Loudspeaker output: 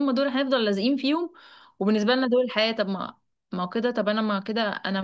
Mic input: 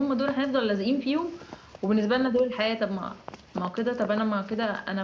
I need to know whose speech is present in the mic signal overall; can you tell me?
echo only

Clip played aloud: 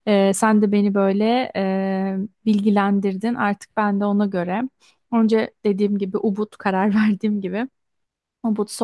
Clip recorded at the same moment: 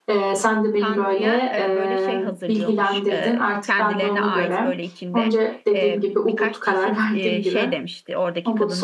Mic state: both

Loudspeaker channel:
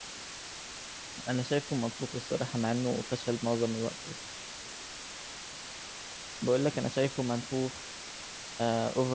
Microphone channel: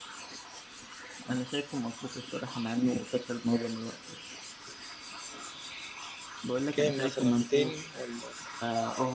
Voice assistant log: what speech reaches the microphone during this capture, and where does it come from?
both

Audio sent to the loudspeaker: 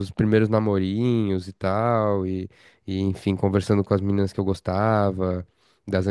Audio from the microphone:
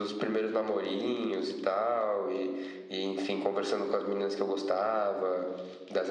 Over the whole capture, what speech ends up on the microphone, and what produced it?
echo only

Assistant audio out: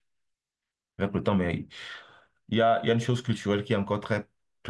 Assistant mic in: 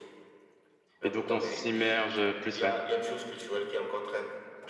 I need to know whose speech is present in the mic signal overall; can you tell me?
both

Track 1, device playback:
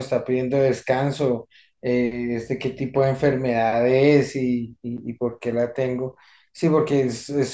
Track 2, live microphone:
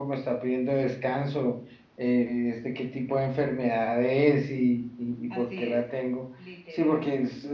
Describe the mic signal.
both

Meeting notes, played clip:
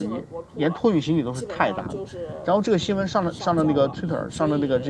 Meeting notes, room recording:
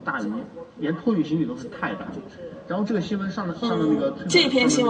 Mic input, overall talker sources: both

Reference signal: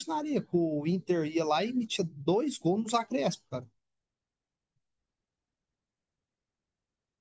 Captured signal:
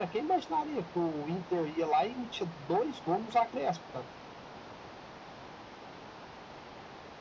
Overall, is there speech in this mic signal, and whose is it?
echo only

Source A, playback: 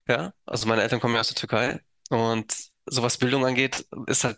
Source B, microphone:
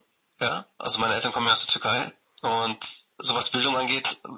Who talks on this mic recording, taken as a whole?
echo only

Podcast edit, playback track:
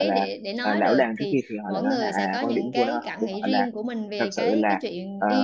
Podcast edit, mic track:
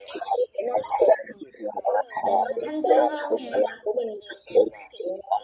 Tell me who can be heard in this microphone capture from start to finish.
both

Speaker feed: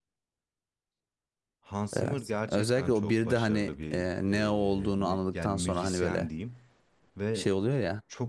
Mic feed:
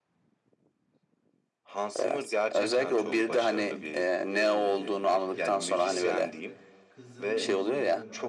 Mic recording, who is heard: both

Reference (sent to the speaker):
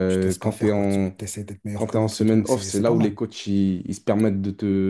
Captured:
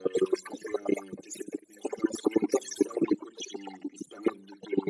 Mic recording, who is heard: echo only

